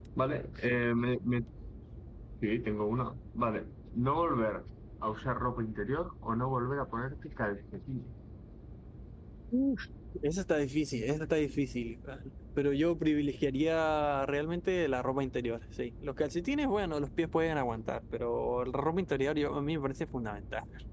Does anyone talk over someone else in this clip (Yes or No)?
No